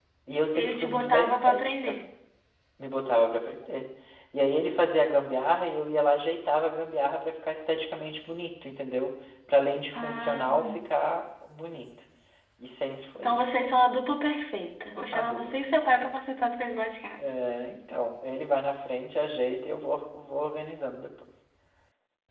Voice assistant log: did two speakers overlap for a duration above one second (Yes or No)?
Yes